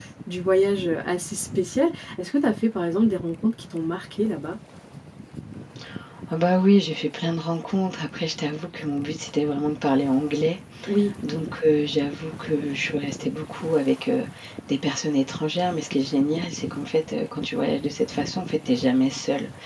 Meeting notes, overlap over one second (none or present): none